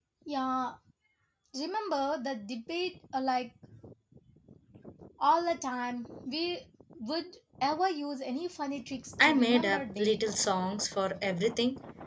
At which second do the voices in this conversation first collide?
9.2 s

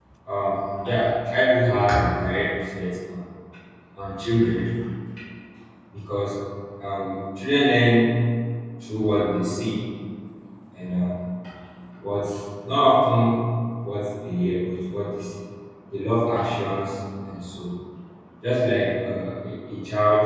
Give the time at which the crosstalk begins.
none

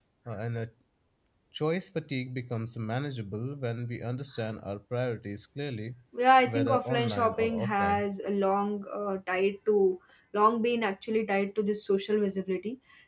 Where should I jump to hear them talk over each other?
6.5 s

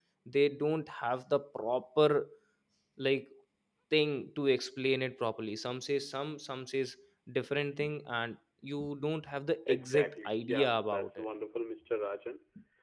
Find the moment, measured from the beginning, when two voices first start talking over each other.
9.7 s

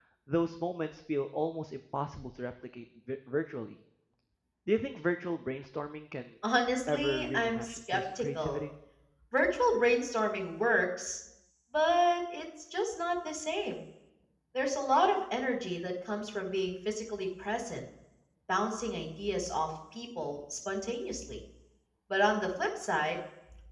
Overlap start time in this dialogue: 6.9 s

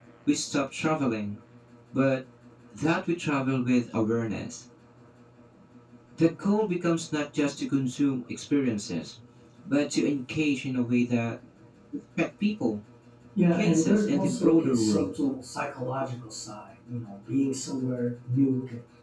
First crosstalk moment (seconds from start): 13.5 s

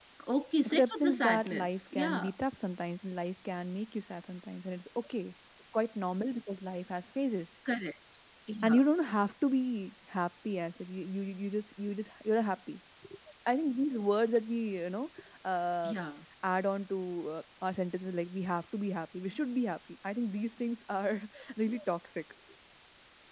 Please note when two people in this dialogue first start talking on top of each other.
0.6 s

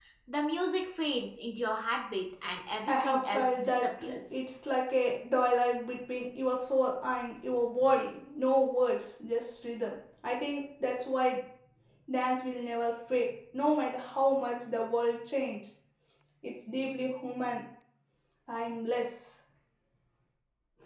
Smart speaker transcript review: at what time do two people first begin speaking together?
2.9 s

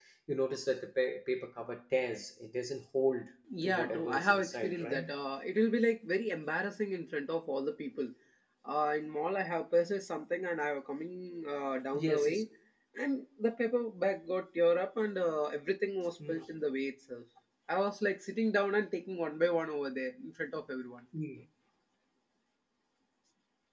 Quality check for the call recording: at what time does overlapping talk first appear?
3.6 s

